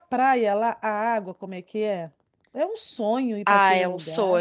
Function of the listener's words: taking over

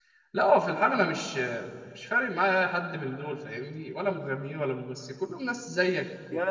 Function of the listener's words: taking over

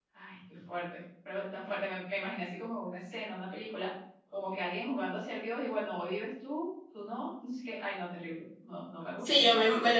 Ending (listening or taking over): taking over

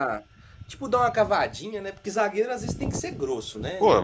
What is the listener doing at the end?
taking over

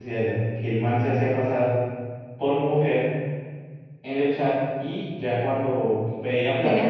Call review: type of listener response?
listening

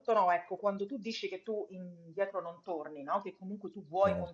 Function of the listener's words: listening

